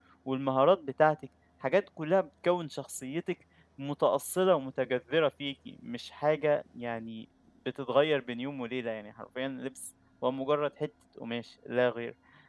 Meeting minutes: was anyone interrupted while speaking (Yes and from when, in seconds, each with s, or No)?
No